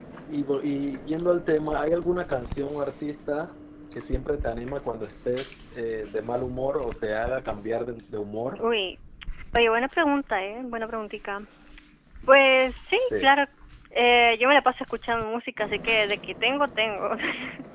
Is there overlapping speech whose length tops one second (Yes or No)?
No